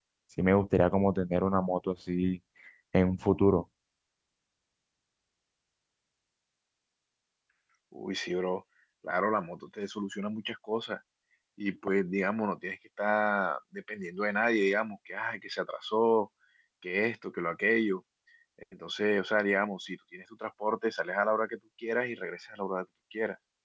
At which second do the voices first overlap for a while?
none

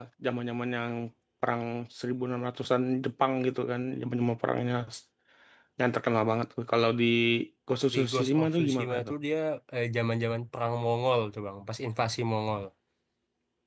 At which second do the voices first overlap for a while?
7.9 s

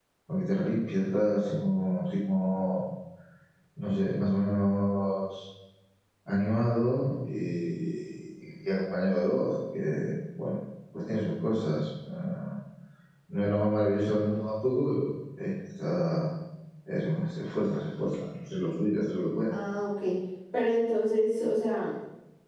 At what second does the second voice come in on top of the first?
none

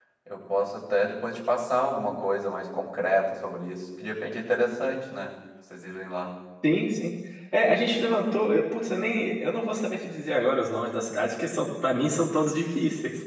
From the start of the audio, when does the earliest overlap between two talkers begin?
none

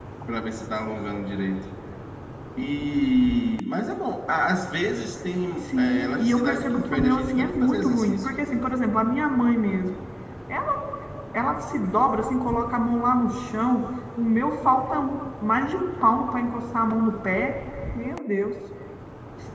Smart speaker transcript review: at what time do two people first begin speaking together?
5.7 s

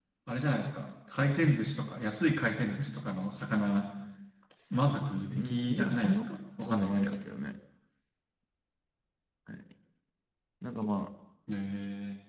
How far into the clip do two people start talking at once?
5.3 s

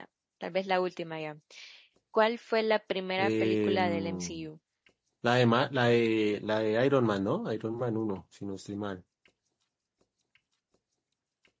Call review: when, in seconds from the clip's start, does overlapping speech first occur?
3.2 s

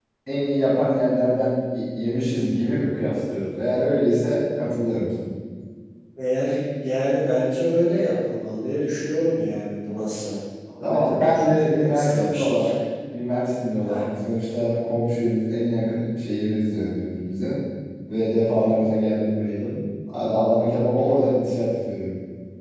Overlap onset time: 10.8 s

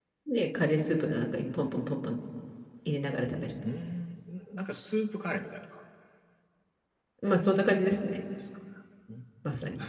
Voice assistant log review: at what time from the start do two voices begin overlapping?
none

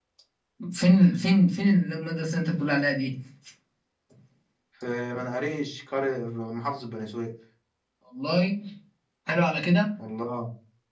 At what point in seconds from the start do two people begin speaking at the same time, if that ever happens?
none

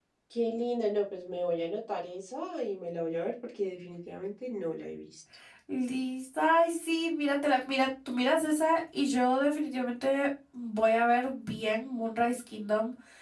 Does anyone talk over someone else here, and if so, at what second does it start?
none

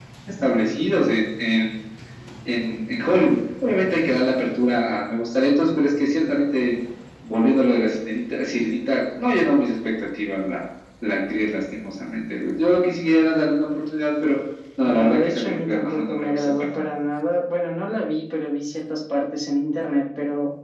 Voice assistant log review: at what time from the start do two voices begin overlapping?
14.9 s

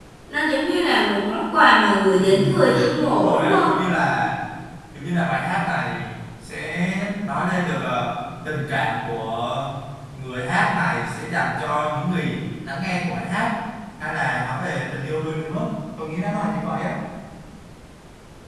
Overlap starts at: 2.2 s

